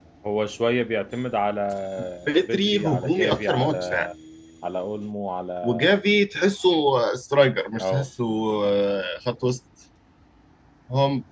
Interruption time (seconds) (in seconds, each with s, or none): 2.5 s